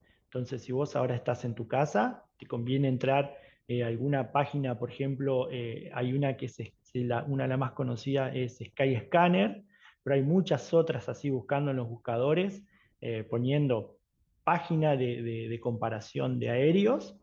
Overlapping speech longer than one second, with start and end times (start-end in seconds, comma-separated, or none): none